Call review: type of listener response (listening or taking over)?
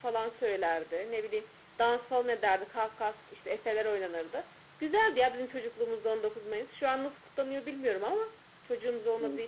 listening